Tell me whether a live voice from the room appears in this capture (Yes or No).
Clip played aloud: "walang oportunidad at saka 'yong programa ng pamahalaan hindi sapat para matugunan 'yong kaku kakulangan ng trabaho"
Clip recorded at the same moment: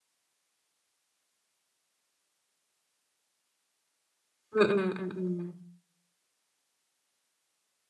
Yes